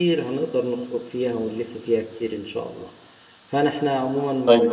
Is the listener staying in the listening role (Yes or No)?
Yes